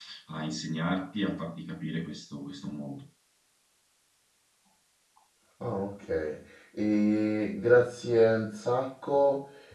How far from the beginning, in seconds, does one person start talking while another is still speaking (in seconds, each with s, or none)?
none